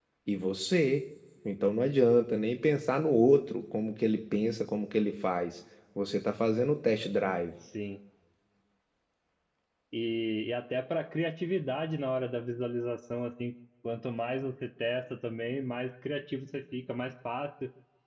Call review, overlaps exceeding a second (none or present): none